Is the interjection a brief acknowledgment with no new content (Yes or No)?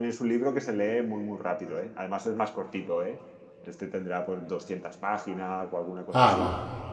Yes